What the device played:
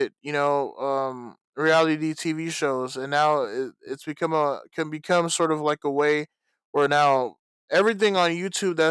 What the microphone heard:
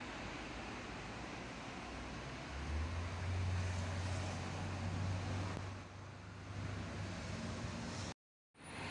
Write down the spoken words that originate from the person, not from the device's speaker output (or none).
none